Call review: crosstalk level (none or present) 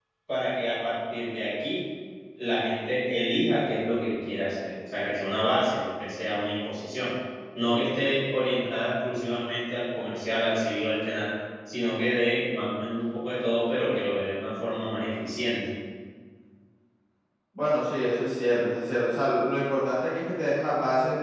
none